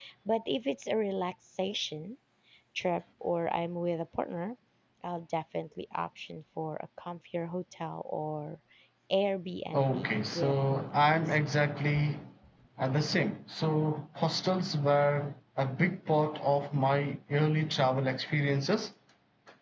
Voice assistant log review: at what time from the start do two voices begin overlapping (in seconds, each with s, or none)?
9.7 s